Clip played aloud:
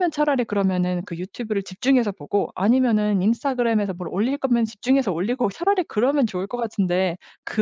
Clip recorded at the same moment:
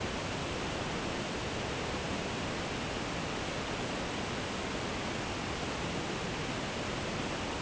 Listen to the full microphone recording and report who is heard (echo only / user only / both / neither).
neither